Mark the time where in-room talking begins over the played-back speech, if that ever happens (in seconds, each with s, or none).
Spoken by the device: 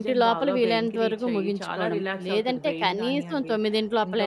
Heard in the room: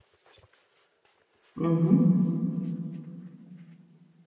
1.6 s